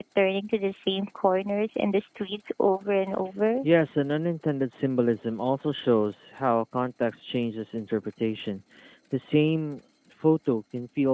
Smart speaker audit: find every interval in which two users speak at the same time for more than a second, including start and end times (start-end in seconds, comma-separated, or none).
none